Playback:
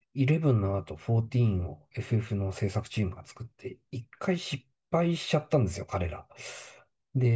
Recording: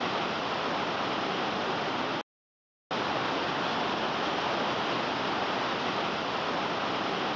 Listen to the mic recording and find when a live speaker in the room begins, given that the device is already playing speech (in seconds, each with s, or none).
none